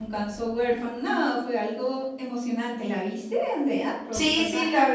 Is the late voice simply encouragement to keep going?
No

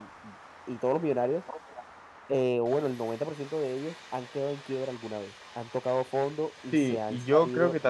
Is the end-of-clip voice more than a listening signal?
Yes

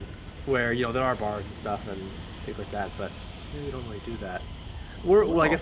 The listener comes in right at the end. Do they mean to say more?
No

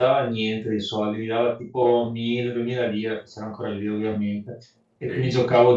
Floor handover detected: No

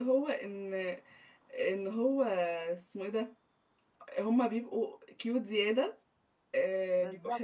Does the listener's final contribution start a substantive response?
No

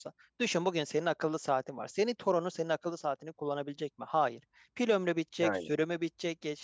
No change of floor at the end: Yes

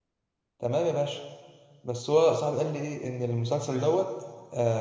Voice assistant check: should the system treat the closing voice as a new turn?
No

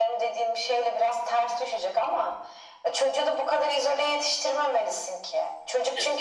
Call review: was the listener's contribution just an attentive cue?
Yes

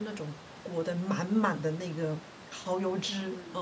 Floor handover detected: No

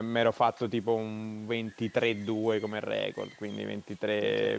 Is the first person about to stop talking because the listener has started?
No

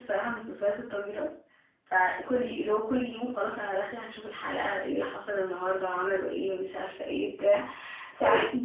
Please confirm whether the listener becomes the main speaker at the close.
No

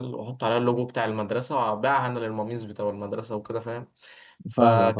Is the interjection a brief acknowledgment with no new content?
Yes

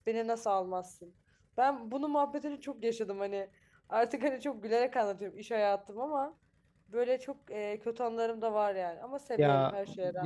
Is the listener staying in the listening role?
No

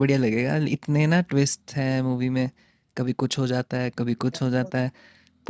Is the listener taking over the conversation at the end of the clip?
No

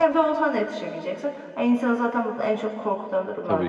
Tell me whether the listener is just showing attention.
No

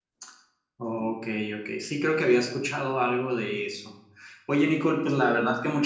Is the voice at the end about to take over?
No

